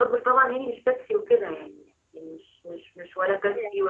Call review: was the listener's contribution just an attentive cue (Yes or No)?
Yes